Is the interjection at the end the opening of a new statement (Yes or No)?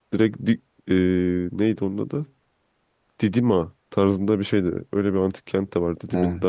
No